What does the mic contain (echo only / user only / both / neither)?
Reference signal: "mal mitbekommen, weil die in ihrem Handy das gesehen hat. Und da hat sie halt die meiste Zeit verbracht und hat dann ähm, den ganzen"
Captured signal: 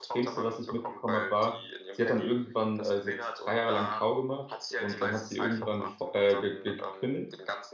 both